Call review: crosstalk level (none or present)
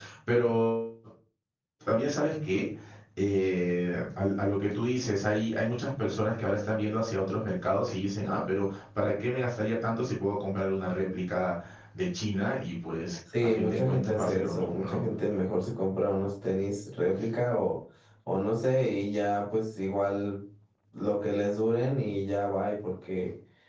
present